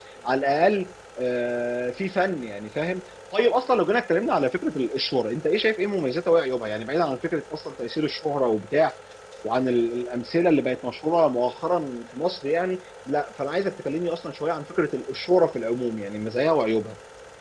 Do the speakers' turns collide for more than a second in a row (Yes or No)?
No